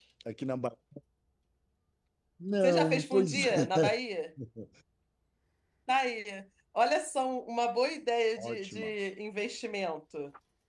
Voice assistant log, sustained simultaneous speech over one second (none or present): present